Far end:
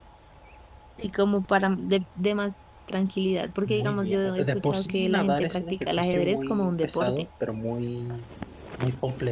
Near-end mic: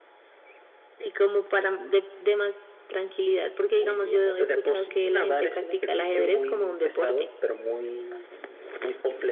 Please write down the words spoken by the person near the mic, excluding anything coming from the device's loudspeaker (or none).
none